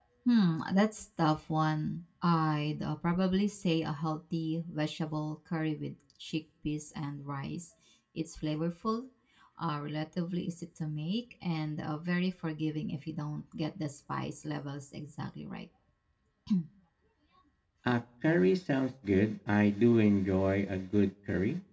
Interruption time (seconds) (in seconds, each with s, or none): none